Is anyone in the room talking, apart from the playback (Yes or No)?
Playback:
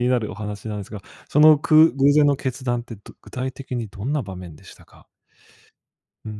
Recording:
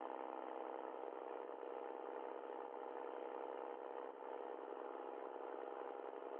No